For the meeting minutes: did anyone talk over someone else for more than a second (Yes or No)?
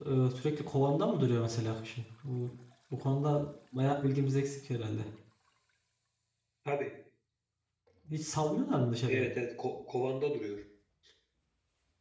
No